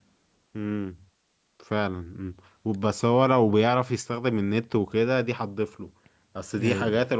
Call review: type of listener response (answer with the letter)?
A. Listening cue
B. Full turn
A